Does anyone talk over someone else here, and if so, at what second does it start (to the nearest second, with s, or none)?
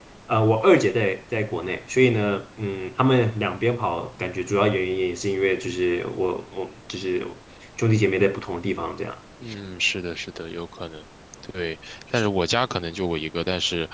none